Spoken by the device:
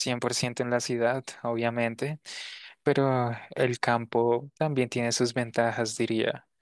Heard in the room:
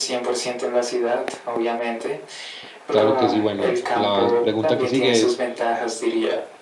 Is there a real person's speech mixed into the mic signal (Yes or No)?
Yes